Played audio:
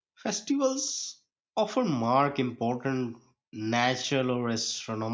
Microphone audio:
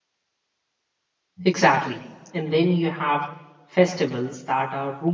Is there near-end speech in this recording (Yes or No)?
Yes